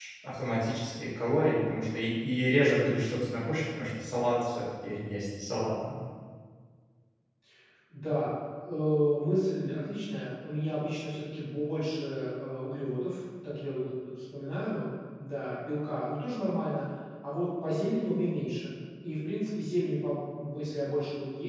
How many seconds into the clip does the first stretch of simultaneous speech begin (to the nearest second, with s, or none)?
none